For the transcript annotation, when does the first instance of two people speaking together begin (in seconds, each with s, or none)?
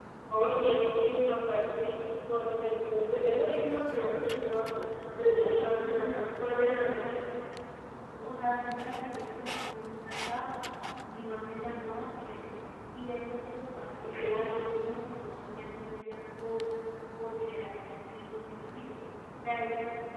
5.2 s